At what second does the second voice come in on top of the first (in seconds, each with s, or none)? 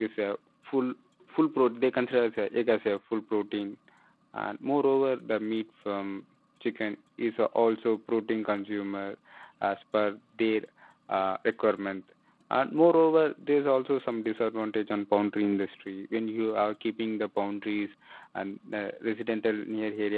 none